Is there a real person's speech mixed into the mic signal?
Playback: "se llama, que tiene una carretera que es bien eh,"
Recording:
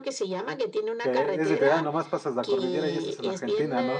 Yes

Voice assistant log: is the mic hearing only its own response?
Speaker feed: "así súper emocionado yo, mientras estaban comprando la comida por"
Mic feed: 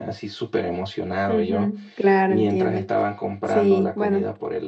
No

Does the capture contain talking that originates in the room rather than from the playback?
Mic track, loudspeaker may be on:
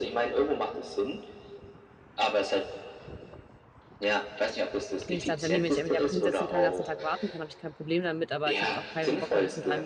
Yes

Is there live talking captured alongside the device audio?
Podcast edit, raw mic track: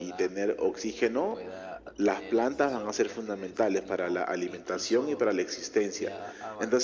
Yes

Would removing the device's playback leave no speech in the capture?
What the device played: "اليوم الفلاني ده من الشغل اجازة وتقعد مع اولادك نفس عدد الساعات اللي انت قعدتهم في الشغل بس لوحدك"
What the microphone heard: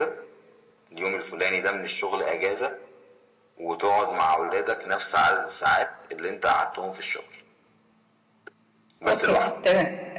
No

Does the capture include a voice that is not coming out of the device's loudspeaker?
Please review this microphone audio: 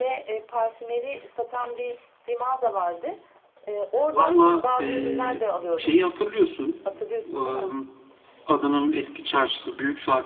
Yes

